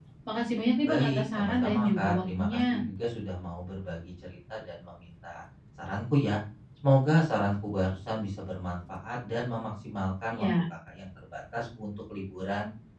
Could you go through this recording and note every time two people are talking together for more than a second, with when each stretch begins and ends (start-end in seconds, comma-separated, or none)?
0.8-2.8